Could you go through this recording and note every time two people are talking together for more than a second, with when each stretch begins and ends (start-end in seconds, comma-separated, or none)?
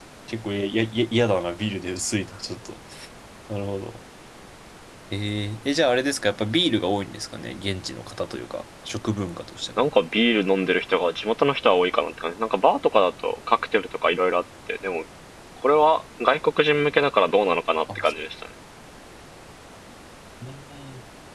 none